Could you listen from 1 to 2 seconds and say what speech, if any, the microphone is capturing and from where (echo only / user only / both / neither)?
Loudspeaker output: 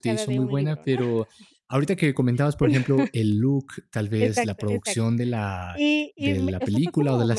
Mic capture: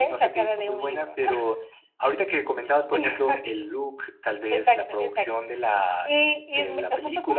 echo only